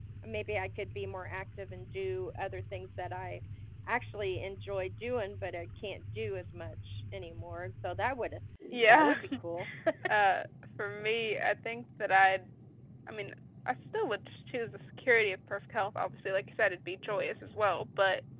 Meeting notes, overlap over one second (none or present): none